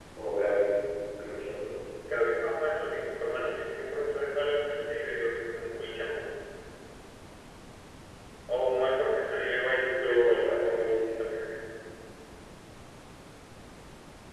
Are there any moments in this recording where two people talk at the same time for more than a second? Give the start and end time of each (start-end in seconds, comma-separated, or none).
9.7-10.9